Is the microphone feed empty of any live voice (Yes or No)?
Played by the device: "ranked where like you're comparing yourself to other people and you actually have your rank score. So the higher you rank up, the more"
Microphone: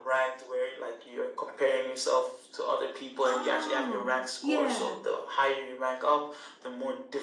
No